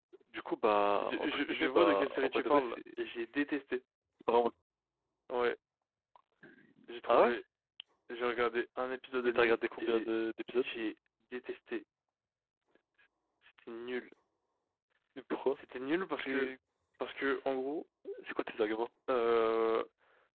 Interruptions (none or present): present